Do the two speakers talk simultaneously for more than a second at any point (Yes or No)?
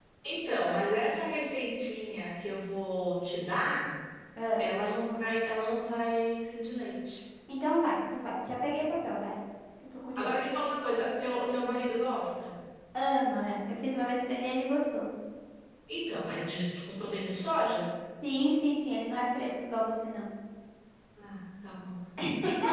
No